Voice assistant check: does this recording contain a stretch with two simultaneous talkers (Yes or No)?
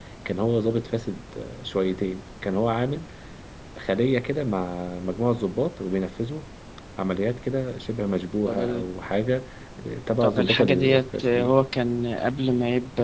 Yes